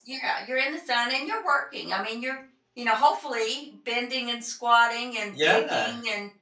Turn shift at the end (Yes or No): No